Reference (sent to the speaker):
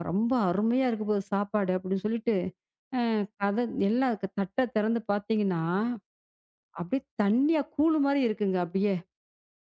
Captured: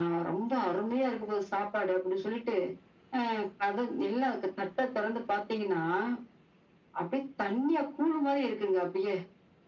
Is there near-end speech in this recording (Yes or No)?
No